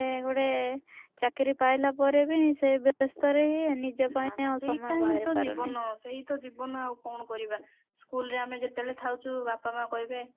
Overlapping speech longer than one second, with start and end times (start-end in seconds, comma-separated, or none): 4.2-5.7